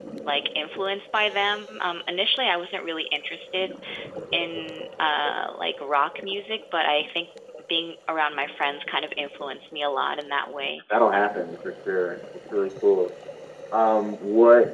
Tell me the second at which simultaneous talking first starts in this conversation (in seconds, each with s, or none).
none